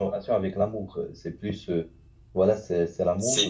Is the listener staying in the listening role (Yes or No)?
Yes